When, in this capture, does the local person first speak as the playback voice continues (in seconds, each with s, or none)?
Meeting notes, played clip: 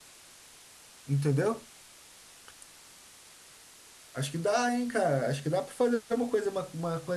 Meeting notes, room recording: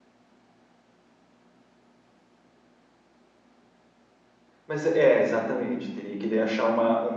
4.7 s